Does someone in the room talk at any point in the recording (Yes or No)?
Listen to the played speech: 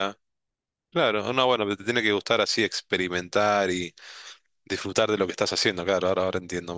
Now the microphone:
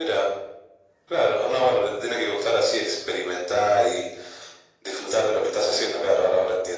No